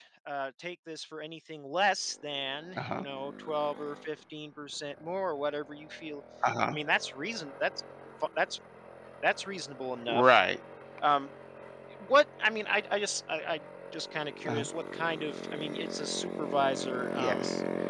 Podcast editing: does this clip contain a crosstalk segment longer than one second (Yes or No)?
No